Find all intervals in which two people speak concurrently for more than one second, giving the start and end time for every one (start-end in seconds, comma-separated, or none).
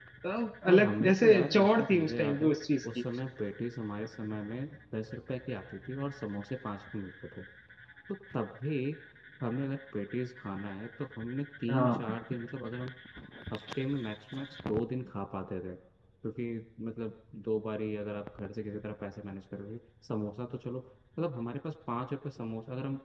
0.7-2.5